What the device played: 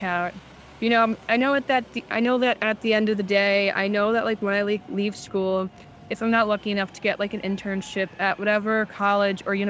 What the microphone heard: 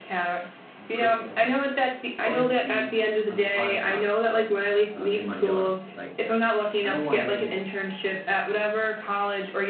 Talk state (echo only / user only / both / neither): both